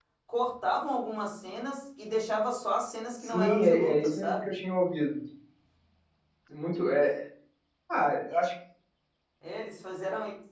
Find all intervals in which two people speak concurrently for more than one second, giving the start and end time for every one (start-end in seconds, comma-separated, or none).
3.2-4.5